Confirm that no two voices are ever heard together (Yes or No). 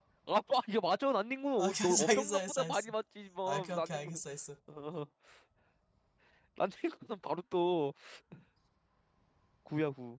No